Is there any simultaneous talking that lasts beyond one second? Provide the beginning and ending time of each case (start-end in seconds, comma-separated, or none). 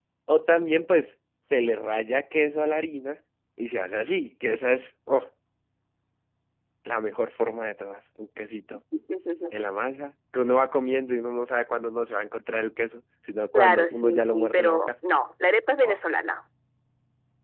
13.5-14.9